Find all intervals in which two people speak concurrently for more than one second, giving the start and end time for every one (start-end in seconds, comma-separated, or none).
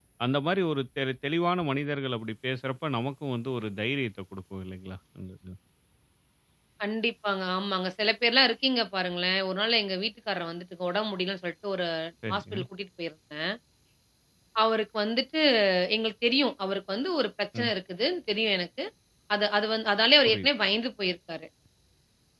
none